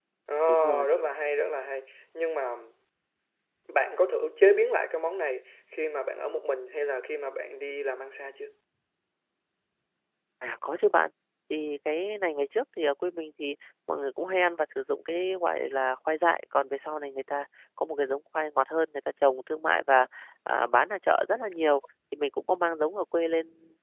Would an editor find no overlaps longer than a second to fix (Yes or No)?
Yes